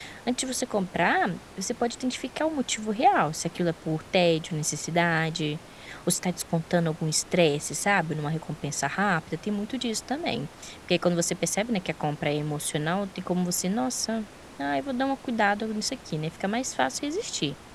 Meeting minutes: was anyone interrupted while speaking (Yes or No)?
No